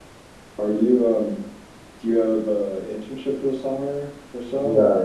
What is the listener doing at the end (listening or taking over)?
taking over